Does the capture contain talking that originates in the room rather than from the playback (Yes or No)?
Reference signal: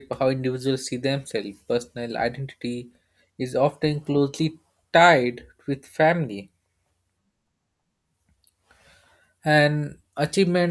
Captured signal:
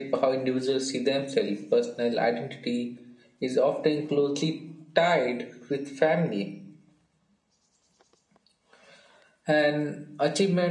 No